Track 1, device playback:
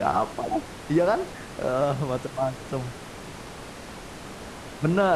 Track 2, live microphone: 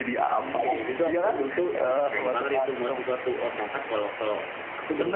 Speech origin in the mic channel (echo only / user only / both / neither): both